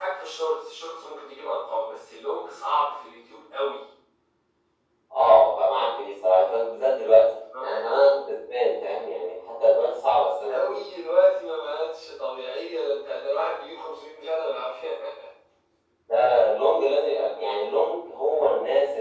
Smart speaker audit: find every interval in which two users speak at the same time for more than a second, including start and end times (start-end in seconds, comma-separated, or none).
none